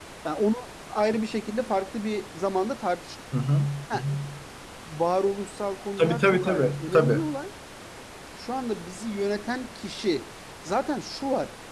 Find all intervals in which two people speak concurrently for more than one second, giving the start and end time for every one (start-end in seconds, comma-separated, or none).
6.0-7.2